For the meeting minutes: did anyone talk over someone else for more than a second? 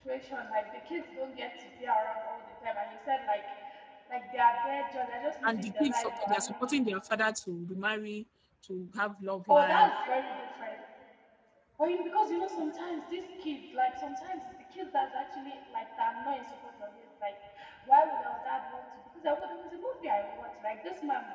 Yes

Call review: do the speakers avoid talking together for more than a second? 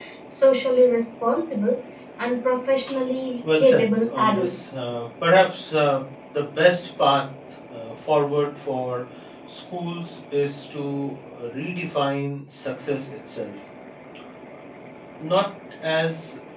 No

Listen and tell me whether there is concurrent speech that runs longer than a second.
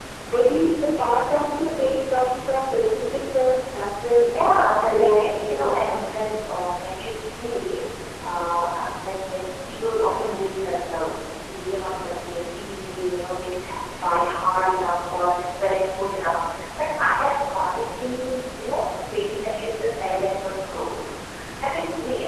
Yes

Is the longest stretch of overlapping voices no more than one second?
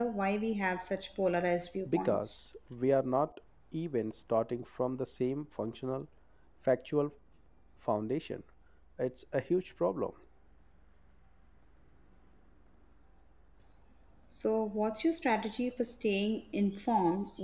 Yes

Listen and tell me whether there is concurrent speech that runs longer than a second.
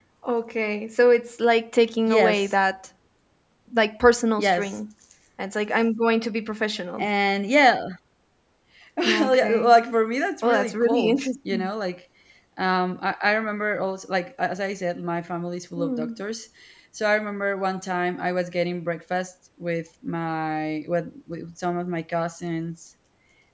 Yes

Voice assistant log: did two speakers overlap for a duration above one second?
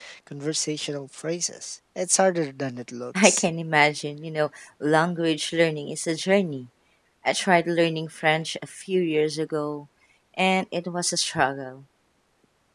No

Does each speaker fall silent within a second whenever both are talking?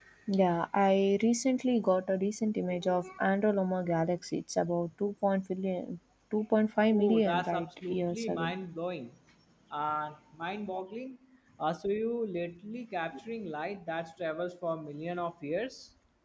No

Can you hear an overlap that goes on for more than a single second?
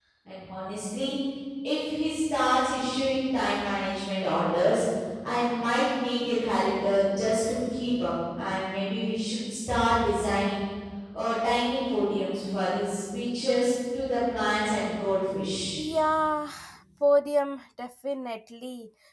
No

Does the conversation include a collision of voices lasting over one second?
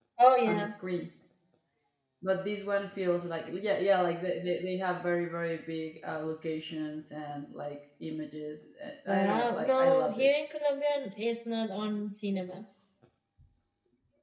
Yes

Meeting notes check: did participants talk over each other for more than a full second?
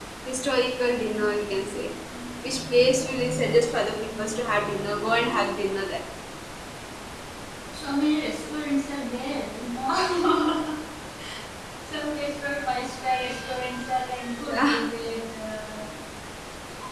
Yes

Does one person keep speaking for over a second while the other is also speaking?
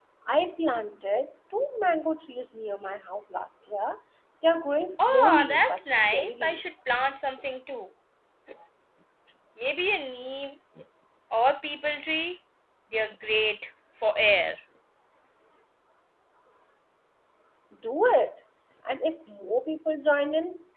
Yes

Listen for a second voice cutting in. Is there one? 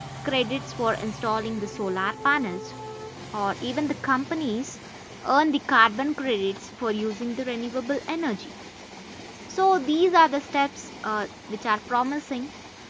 No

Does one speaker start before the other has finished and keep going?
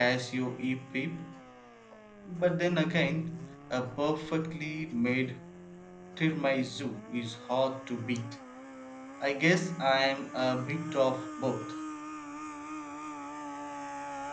No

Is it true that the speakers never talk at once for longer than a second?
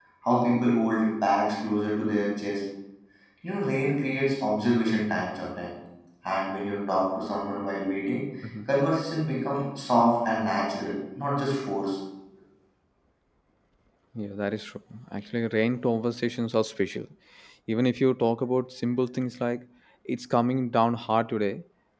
Yes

